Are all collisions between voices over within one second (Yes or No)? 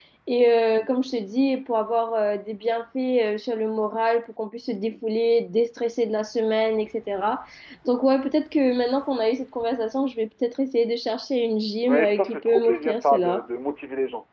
No